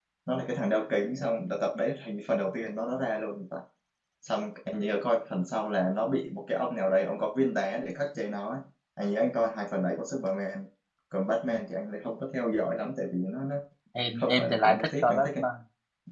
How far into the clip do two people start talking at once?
14.2 s

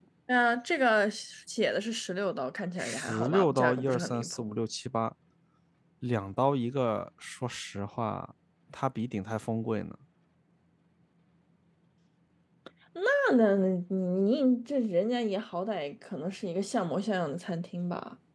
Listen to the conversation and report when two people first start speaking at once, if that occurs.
2.8 s

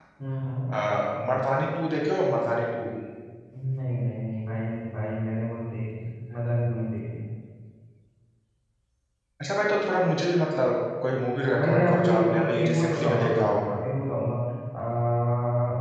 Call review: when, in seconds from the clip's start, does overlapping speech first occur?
11.5 s

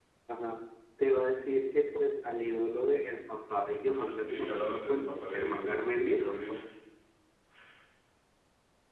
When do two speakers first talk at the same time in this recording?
3.9 s

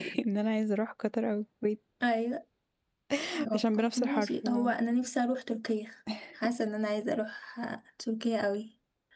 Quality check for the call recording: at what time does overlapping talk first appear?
3.5 s

